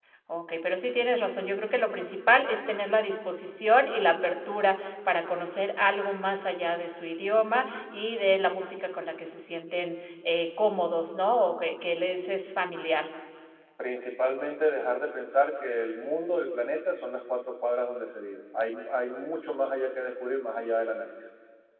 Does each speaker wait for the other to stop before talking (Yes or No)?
Yes